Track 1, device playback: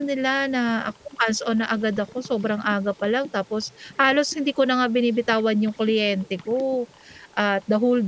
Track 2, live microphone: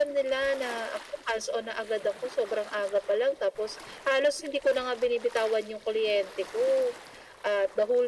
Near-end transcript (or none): none